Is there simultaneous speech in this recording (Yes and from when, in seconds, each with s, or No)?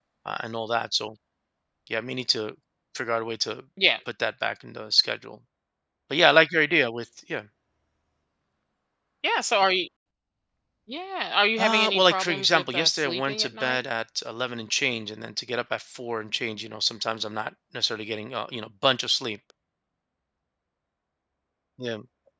Yes, from 11.6 s